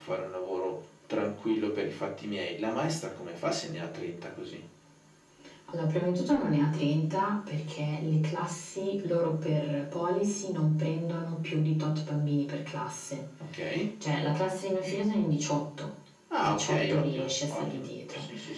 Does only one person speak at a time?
No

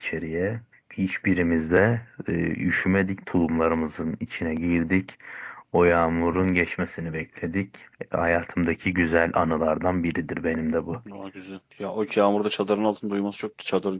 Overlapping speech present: No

